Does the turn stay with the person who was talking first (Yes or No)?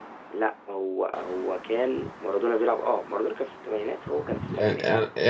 No